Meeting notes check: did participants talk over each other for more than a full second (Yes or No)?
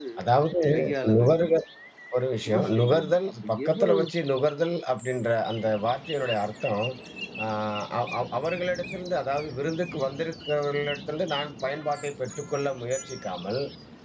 Yes